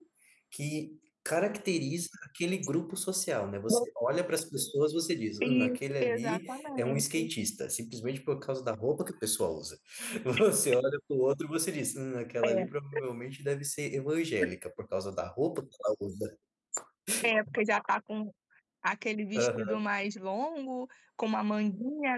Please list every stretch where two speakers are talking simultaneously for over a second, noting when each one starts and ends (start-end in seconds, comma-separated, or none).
5.4-7.3